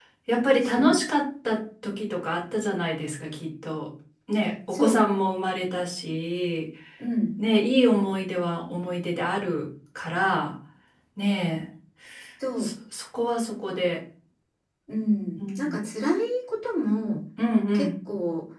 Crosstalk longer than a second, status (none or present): none